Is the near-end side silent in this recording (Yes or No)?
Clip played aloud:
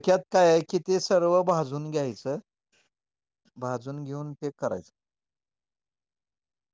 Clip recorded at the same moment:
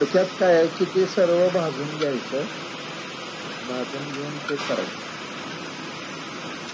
Yes